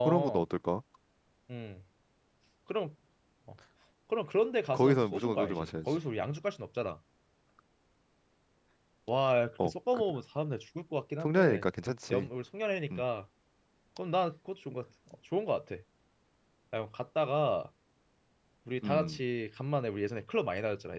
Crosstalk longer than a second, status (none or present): present